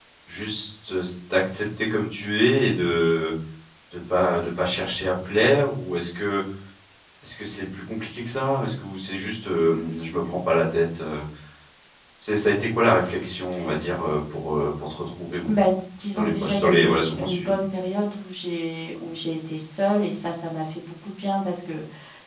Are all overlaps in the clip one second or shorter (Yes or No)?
No